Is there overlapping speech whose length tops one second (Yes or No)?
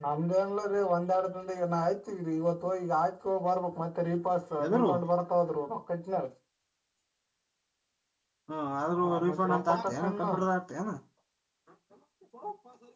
Yes